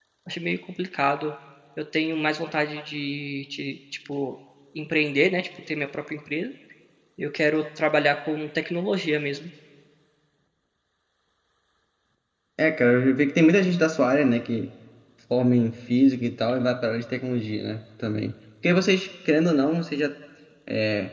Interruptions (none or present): none